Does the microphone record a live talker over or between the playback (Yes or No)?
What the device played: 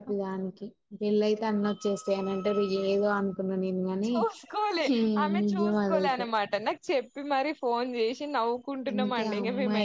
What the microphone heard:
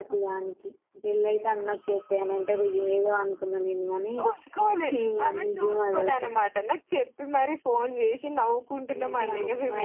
No